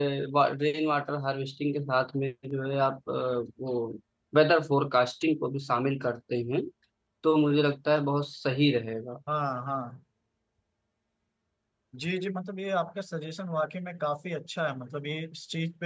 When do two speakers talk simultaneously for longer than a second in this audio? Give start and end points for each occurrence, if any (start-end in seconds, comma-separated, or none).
none